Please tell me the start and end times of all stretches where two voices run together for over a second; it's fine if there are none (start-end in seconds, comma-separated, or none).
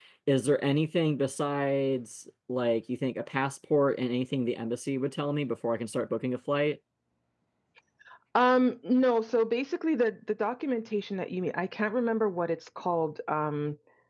none